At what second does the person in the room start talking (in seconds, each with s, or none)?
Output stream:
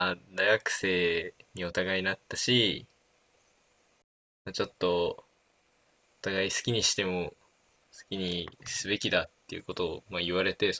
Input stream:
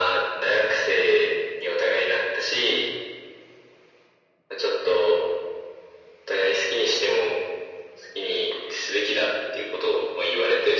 none